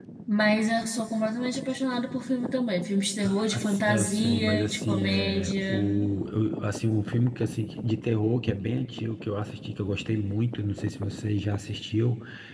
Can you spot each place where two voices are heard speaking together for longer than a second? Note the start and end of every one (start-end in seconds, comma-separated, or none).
3.2-5.9